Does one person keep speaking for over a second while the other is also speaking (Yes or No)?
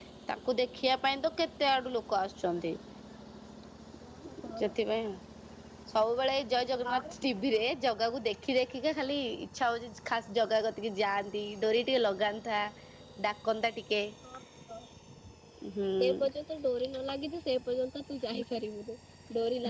No